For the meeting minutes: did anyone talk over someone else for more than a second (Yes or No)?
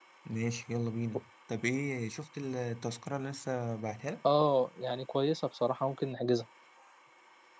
No